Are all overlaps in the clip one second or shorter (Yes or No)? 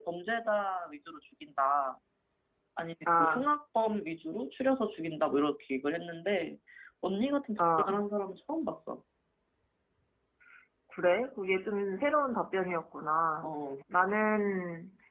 Yes